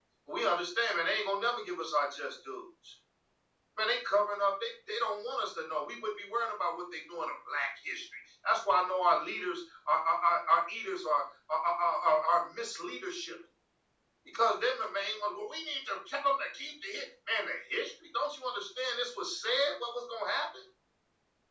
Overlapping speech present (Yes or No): No